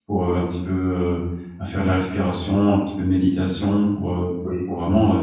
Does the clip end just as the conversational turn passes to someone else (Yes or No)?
No